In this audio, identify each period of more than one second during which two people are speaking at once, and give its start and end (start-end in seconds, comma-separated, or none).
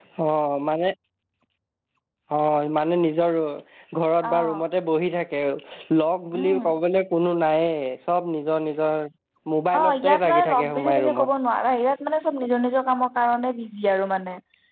9.8-11.3